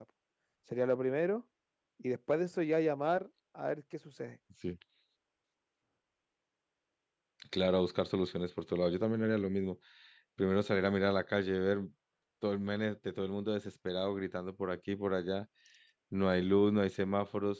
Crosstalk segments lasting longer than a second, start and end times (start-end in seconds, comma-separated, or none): none